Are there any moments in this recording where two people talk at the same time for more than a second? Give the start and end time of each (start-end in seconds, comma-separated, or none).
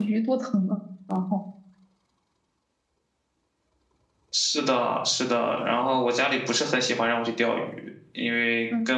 none